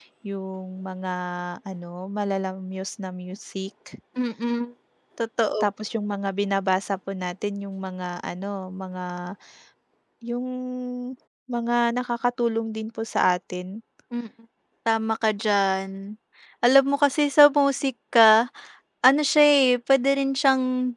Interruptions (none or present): none